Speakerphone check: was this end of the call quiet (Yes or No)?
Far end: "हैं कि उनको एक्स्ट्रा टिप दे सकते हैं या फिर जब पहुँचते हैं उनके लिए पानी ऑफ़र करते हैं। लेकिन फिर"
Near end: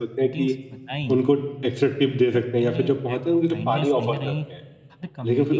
No